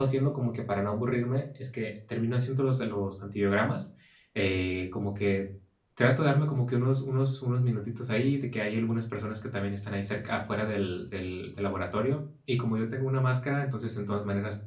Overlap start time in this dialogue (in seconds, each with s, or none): none